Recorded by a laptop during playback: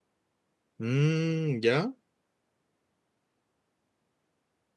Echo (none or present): none